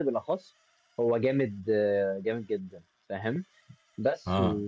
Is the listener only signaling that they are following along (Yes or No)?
Yes